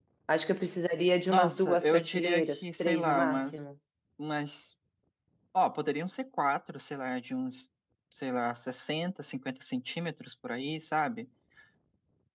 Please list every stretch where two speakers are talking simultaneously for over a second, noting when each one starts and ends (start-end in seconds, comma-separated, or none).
1.3-3.6